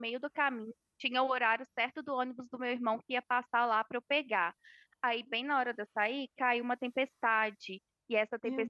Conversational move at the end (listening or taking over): listening